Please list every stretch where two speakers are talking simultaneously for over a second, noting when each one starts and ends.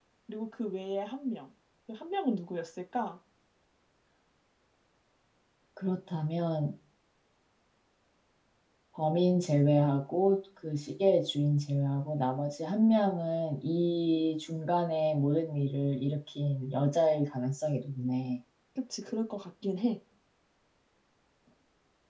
none

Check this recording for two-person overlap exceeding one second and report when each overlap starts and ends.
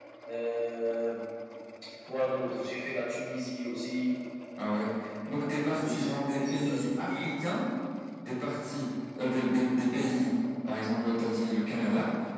5.7-7.2

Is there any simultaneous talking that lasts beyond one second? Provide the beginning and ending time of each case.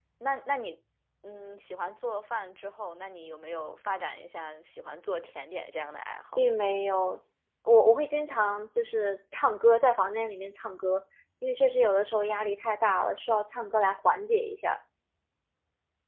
none

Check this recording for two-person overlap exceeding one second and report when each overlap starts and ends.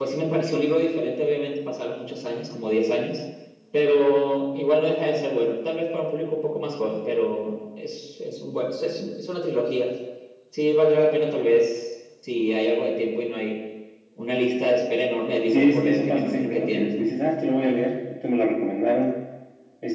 15.5-17.1

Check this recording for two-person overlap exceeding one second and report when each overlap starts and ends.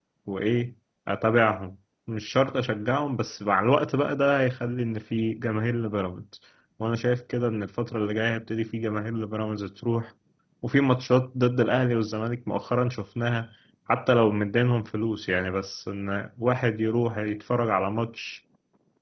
none

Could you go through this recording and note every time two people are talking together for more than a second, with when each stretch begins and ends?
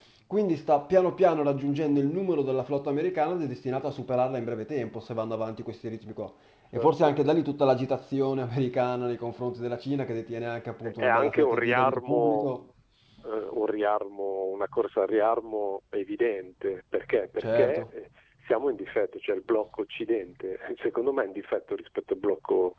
10.8-12.5

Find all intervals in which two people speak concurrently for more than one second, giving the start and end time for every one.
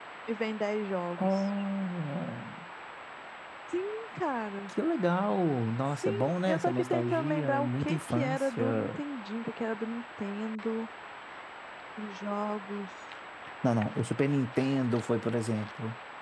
6.0-8.8

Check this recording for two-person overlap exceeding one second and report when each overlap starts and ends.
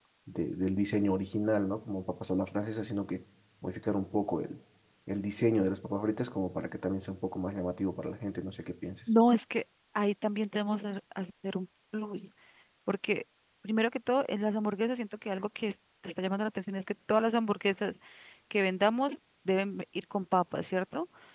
none

